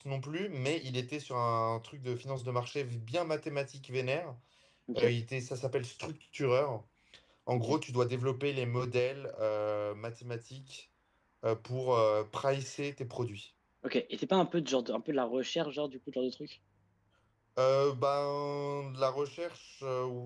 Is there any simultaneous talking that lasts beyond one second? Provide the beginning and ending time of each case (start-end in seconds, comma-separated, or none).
none